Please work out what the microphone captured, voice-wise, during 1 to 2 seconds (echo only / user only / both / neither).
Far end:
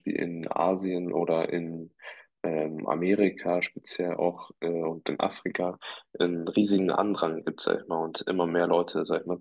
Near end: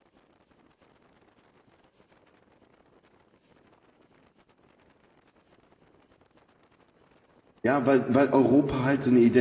neither